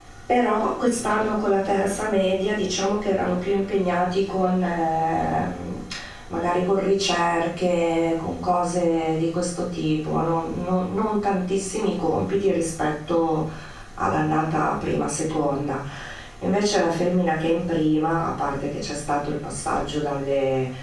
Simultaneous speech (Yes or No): No